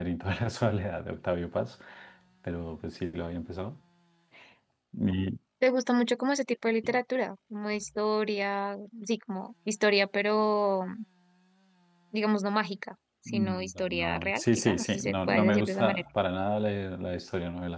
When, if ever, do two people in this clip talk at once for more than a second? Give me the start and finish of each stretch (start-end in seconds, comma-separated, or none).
13.3-16.0